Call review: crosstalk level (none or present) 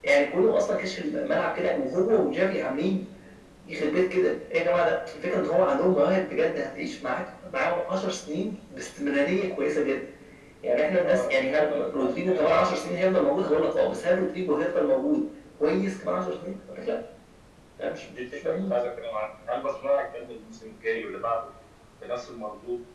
present